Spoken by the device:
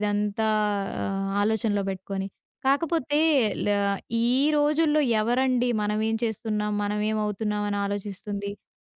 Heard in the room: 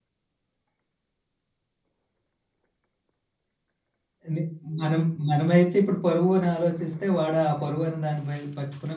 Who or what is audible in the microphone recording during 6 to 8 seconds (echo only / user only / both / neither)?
user only